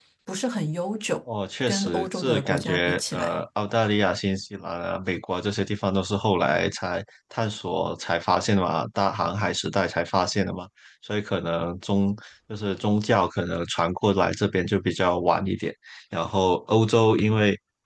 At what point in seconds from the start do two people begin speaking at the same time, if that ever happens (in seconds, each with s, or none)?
1.7 s